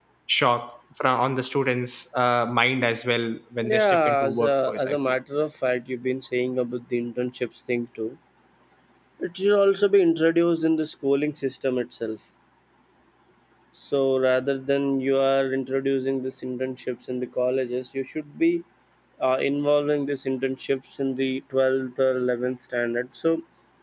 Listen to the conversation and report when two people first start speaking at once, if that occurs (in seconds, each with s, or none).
3.6 s